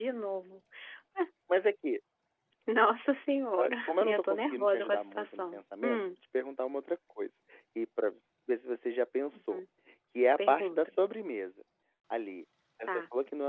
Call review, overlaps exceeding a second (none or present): present